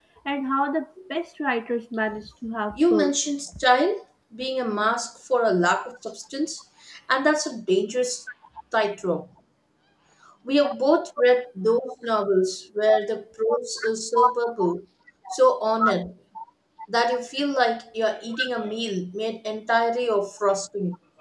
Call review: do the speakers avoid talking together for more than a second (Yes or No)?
Yes